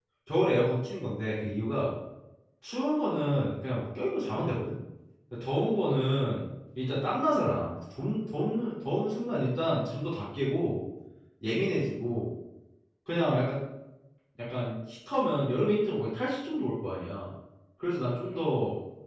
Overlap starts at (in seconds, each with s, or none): none